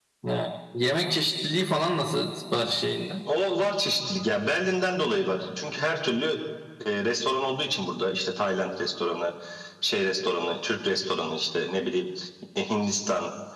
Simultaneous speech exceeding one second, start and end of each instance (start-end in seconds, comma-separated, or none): none